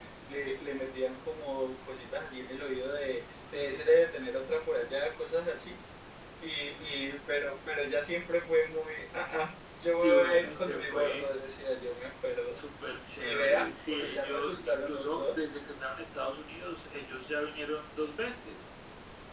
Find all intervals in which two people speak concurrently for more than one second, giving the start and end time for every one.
10.0-11.3, 13.2-15.4

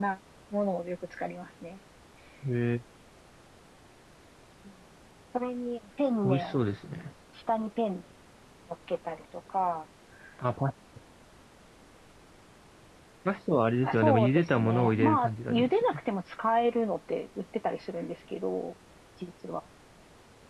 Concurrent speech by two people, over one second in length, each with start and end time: 13.8-15.7

